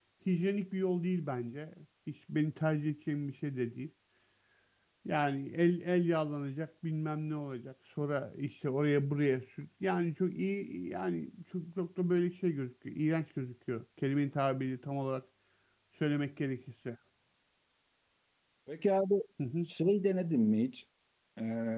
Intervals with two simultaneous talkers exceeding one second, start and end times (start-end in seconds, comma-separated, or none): none